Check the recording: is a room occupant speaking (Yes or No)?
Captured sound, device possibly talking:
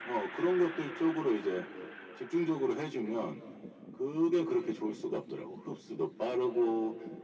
No